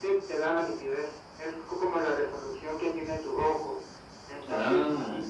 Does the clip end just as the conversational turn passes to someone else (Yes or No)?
No